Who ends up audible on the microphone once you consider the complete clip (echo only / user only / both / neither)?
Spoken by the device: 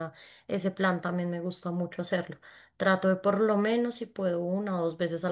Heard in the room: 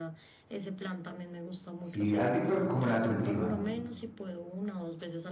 both